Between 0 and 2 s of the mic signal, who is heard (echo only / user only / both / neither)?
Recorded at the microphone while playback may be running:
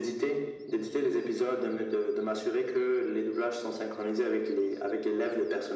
echo only